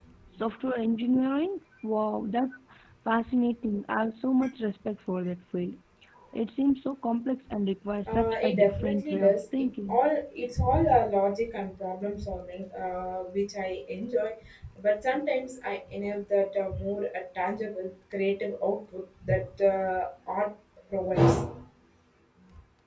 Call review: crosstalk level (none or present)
present